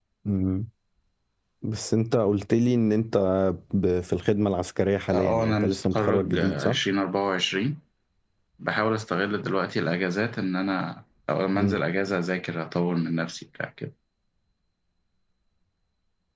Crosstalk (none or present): present